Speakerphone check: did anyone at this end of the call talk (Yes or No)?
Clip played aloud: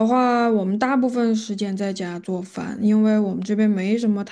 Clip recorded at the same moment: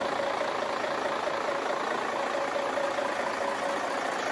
No